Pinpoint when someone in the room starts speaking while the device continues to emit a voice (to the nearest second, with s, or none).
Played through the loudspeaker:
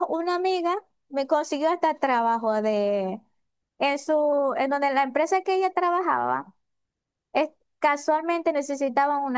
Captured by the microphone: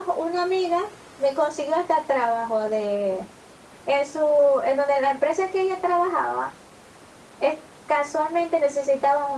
none